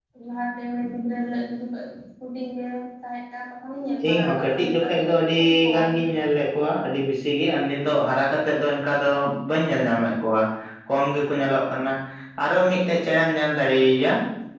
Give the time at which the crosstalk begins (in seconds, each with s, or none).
4.0 s